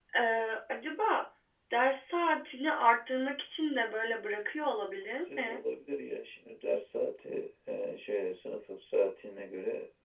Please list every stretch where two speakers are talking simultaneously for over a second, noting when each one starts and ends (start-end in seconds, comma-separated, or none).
none